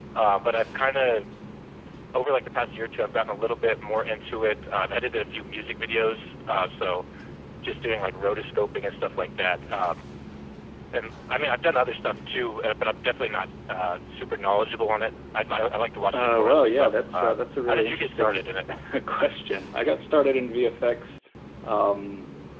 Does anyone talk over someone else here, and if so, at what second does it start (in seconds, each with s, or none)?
16.1 s